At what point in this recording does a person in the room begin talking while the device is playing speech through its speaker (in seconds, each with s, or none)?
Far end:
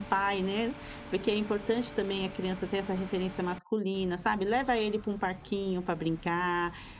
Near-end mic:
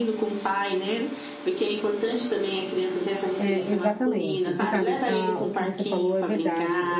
3.4 s